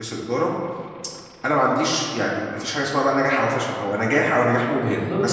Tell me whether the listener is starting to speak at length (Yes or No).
Yes